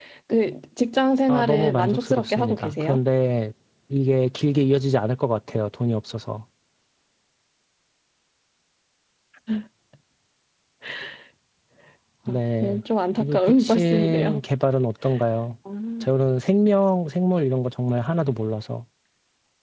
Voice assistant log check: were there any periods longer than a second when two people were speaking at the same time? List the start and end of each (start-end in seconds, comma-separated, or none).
1.3-3.0, 13.2-14.4